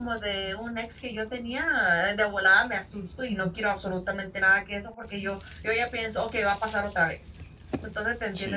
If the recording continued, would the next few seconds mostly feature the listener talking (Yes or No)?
No